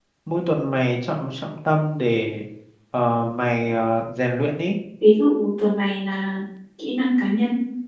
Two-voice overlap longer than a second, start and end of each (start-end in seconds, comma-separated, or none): none